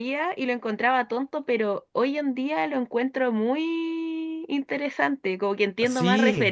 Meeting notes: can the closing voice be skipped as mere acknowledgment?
Yes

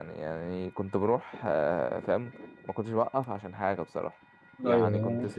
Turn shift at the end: No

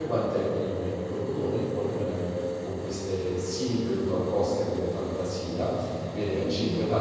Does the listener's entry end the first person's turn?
No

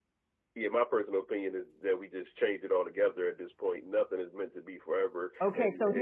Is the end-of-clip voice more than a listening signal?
Yes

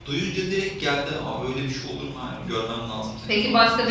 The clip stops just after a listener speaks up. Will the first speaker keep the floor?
No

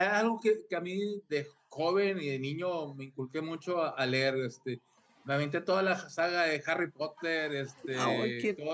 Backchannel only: Yes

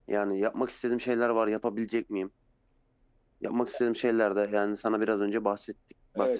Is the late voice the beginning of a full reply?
Yes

